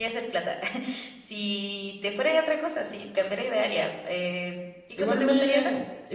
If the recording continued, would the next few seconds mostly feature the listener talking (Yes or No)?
Yes